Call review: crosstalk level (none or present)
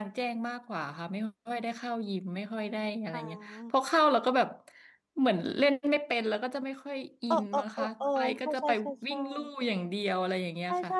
present